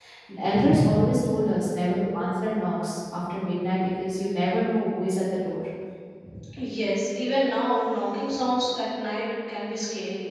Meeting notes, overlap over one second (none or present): none